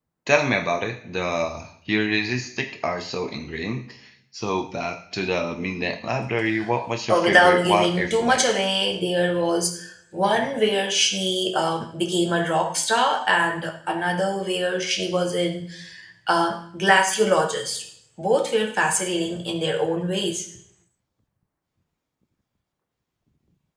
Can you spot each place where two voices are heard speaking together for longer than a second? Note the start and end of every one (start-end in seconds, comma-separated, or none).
7.1-8.5